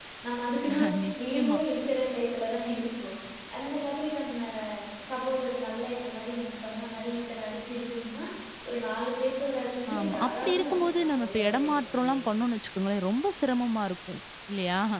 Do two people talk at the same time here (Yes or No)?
Yes